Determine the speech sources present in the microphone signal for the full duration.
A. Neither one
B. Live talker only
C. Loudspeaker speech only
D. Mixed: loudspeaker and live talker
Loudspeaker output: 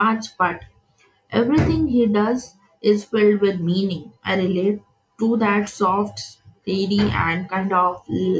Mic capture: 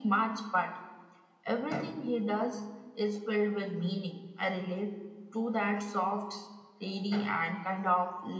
C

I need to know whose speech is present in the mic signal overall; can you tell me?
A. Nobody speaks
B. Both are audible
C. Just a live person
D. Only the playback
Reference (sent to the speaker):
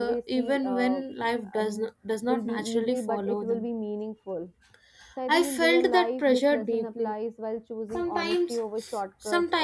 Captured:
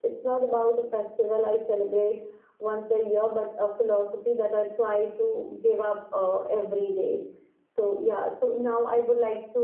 C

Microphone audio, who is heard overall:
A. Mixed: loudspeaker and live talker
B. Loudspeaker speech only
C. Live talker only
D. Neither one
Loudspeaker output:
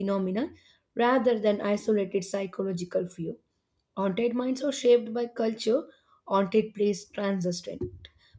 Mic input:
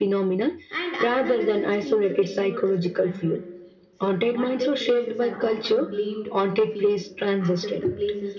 A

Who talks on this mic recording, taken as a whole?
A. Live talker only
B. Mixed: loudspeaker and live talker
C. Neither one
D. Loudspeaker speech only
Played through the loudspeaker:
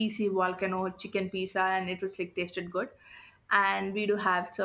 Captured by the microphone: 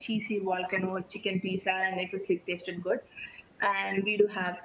D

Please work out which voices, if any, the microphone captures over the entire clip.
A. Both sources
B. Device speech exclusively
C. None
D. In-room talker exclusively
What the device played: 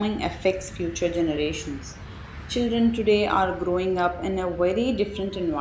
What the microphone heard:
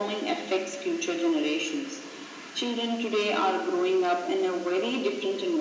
B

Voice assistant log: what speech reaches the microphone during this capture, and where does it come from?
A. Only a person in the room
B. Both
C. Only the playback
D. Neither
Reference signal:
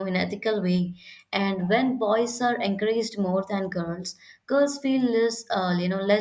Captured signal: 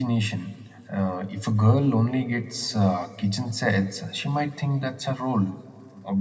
A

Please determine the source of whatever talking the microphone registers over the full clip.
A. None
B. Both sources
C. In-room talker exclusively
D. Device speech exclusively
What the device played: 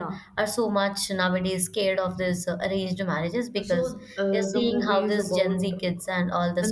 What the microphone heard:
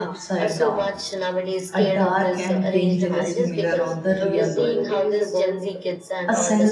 B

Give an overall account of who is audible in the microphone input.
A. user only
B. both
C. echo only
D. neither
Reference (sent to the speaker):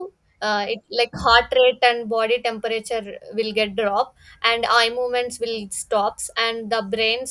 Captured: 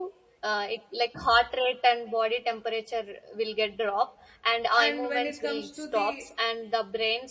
B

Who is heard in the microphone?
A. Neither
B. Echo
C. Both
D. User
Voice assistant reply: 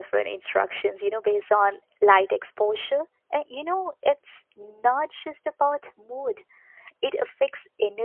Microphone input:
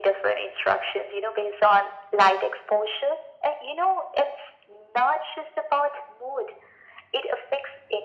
B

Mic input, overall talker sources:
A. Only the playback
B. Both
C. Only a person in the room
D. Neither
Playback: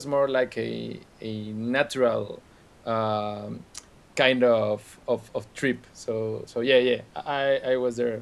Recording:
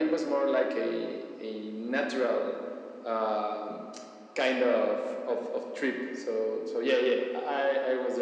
A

